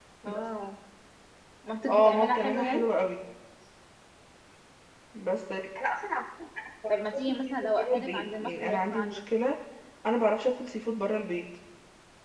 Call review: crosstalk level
present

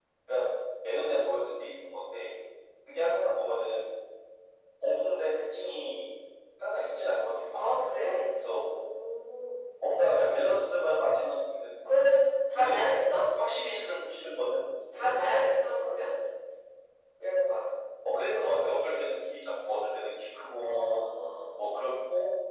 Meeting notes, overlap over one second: none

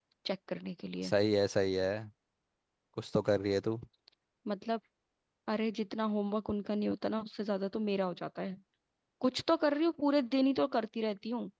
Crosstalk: none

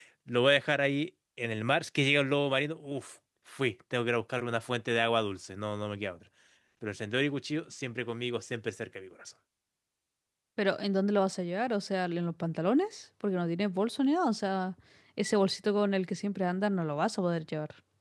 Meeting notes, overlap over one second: none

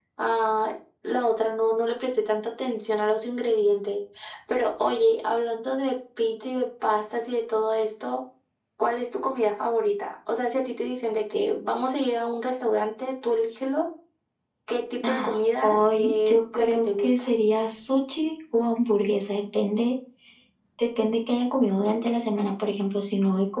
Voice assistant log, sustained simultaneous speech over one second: present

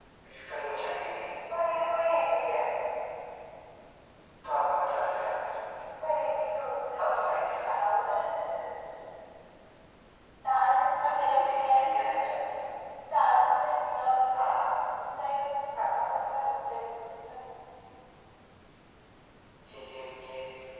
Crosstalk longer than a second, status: present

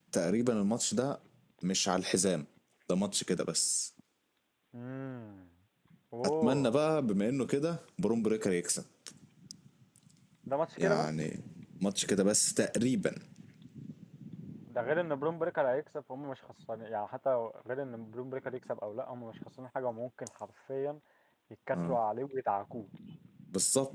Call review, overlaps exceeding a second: none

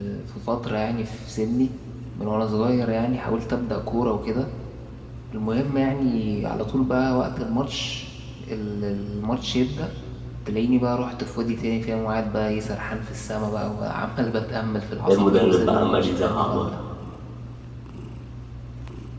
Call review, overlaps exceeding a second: present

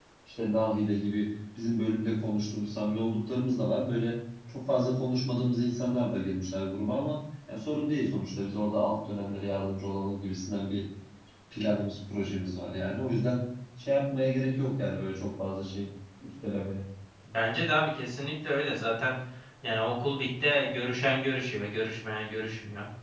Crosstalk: none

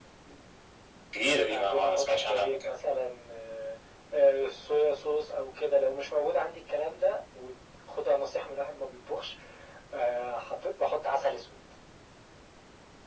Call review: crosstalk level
present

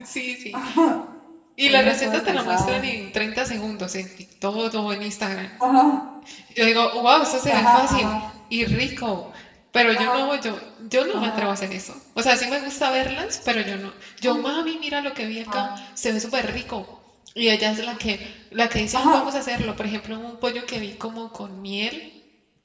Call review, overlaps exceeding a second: present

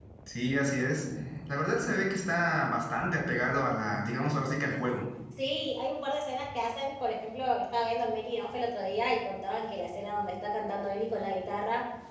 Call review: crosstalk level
none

